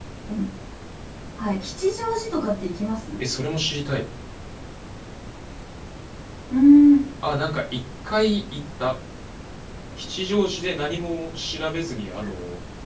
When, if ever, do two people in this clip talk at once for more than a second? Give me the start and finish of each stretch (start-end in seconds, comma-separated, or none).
none